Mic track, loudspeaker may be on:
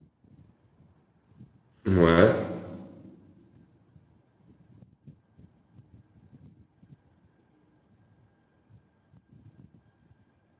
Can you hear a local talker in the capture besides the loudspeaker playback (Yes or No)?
Yes